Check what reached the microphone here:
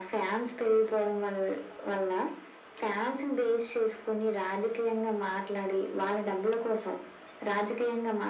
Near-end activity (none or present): none